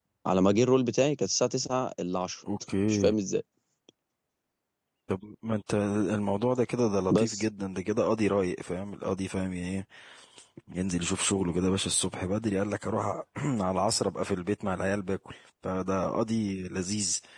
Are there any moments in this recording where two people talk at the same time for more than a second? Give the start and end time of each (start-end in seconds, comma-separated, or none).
none